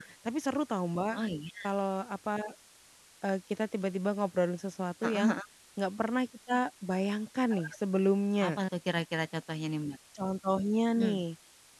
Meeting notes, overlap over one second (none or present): none